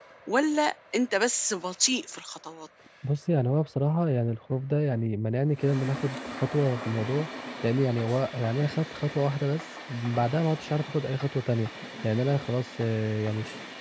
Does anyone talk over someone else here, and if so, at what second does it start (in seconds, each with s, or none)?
none